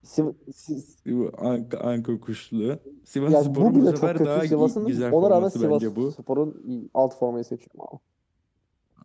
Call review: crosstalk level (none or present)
present